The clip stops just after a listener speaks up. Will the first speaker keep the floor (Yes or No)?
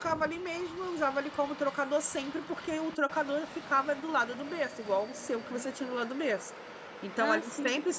Yes